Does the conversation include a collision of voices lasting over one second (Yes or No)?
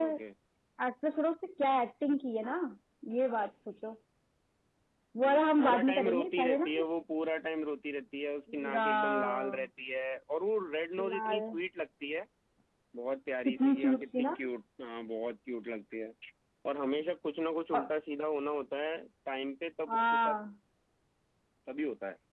Yes